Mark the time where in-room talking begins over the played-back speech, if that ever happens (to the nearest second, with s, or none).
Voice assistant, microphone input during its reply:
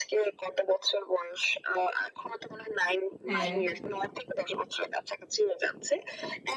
3 s